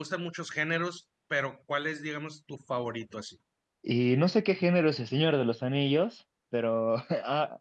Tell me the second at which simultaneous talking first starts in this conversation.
none

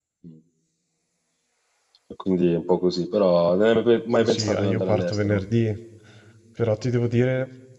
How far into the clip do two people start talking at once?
4.2 s

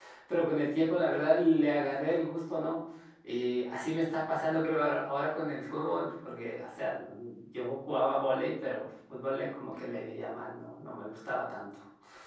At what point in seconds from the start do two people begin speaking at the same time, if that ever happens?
none

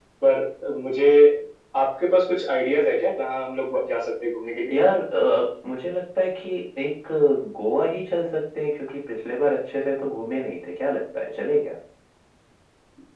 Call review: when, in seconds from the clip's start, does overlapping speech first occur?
none

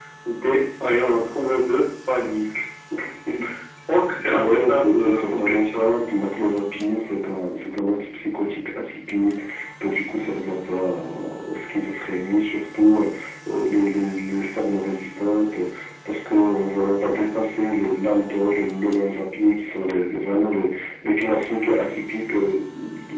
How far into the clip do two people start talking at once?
4.3 s

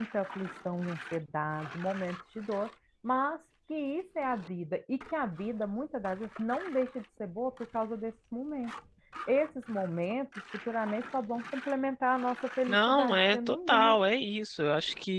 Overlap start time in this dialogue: 12.7 s

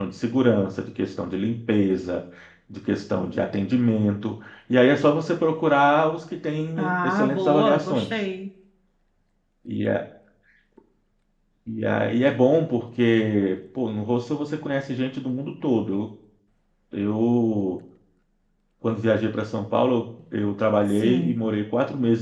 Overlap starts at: 6.8 s

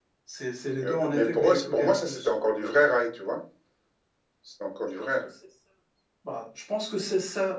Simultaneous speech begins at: 0.8 s

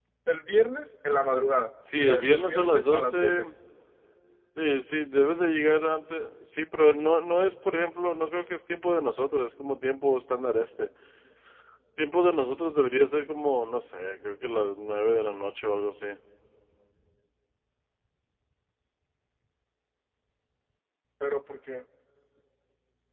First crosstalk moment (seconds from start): 1.8 s

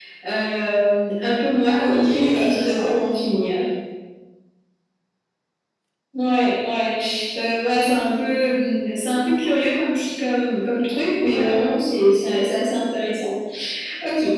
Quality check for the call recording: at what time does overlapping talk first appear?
1.6 s

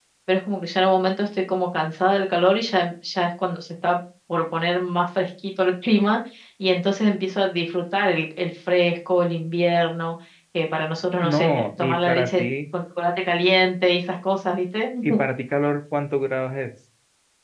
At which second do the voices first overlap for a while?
11.2 s

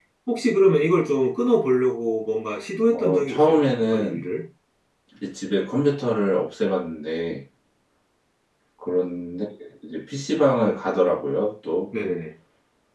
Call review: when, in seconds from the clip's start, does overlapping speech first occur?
2.9 s

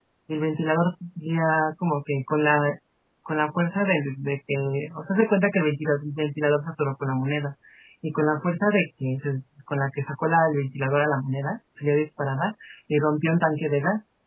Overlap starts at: none

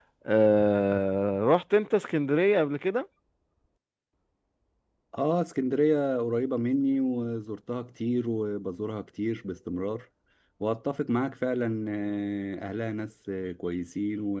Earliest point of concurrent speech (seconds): none

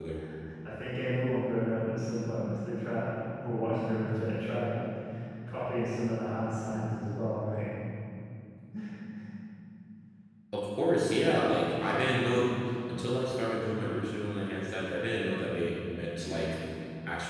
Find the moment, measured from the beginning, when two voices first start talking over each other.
none

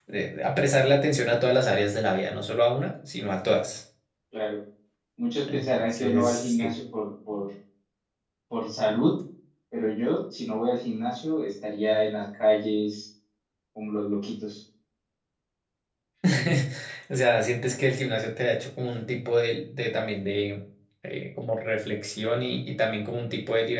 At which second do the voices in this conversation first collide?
5.5 s

